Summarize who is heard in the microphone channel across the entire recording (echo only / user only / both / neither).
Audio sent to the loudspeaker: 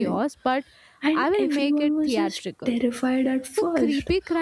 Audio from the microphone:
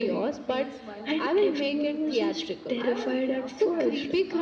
both